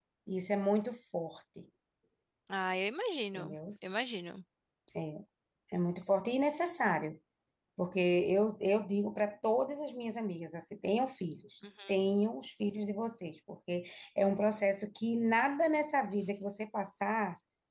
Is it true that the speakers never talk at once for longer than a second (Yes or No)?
Yes